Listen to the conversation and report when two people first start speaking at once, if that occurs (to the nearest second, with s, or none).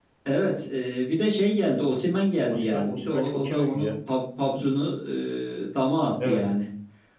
2 s